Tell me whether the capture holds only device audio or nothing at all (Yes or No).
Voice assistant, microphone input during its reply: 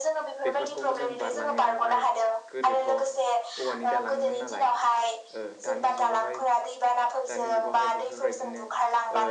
No